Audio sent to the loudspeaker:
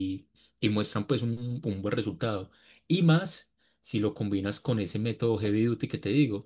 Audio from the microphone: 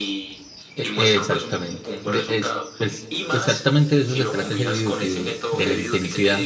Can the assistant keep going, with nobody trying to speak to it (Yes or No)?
No